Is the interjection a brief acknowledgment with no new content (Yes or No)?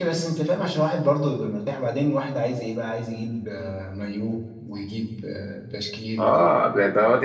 No